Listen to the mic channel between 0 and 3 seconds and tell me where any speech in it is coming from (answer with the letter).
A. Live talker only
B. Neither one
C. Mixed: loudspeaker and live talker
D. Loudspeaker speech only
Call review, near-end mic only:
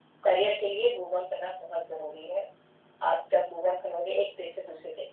D